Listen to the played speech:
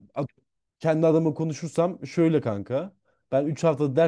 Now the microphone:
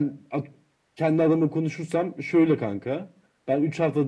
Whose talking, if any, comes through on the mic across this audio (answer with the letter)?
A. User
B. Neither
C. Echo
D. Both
C